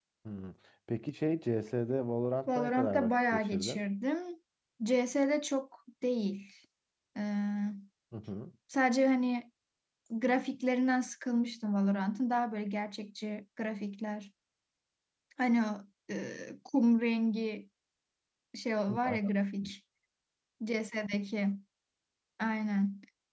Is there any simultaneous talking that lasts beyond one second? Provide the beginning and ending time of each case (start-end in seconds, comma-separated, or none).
2.5-3.8